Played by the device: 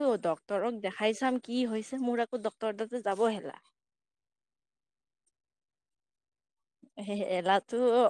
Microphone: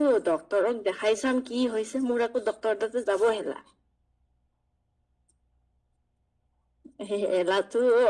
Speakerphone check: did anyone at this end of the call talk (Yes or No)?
No